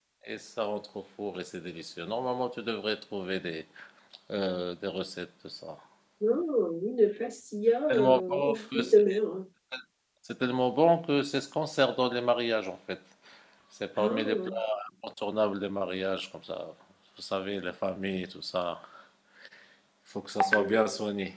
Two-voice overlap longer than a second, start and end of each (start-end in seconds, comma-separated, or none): 7.9-9.2